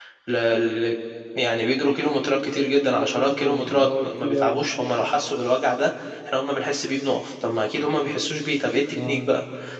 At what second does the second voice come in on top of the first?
3.0 s

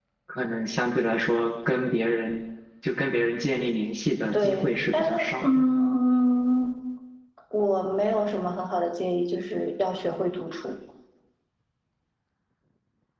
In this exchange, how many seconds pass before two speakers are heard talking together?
4.3 s

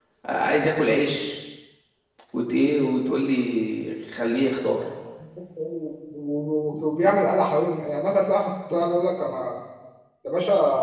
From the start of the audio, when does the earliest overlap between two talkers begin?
none

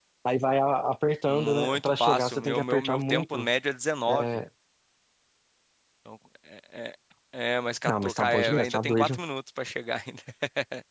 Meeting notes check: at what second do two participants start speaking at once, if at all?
1.3 s

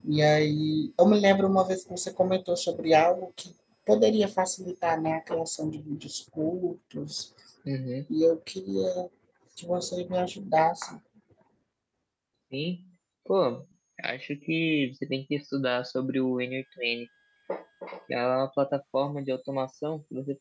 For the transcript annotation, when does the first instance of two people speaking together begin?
none

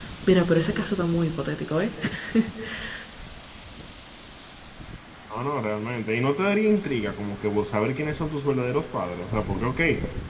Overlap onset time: none

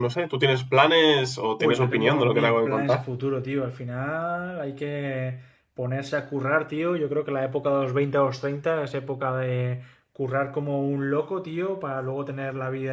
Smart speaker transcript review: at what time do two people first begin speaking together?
1.6 s

